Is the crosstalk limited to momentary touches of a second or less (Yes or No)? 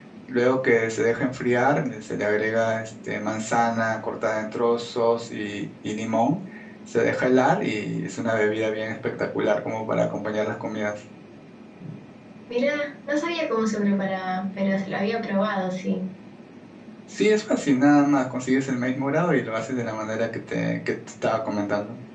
Yes